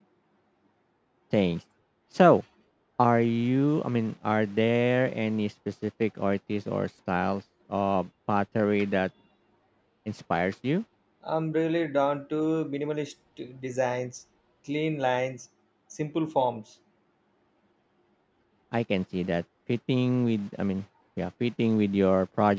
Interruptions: none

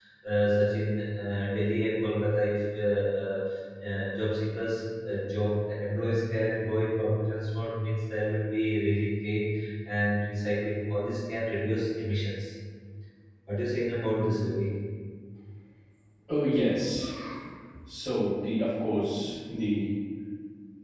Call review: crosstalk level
none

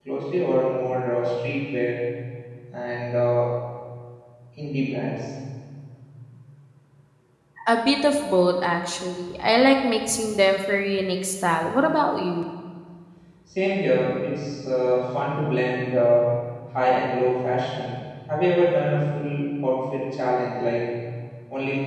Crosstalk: none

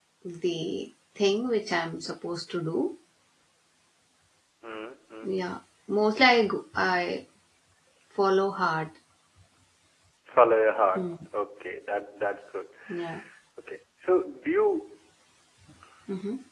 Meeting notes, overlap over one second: none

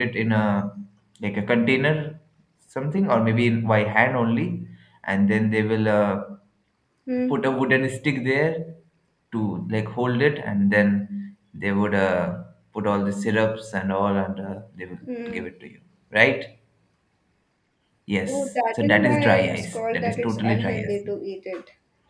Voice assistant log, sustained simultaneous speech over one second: present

